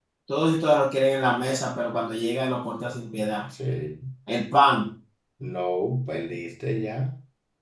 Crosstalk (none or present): none